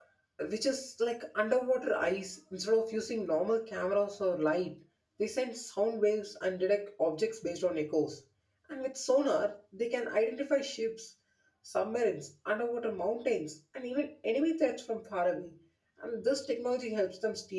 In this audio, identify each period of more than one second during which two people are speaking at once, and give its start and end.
none

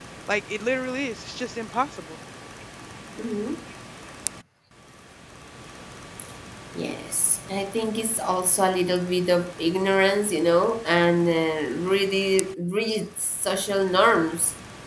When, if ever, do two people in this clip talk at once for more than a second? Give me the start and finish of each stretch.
none

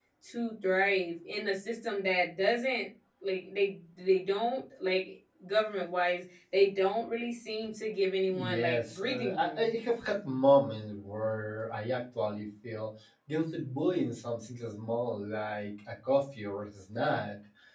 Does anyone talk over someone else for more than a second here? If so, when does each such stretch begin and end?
8.3-9.7

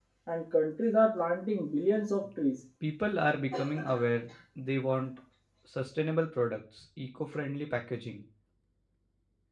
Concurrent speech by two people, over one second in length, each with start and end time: none

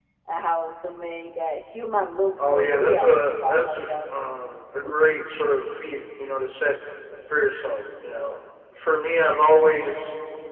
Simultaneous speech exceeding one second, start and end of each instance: 2.4-3.9

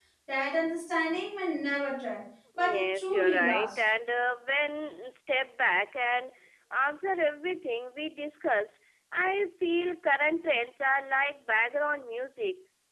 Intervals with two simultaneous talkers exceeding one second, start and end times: 2.6-3.8

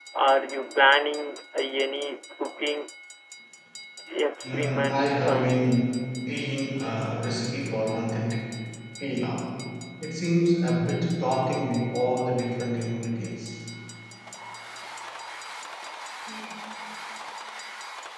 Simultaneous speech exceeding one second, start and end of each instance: 4.4-5.7

